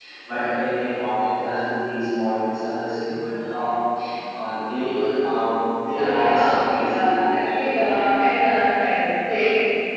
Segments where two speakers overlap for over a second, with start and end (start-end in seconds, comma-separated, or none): 6.1-7.4